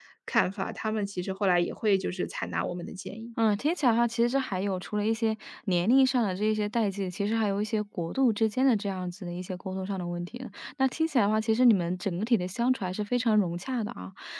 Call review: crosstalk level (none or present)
none